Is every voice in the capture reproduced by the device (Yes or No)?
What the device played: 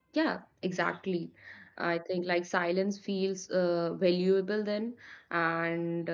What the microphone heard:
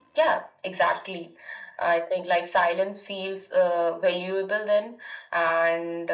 Yes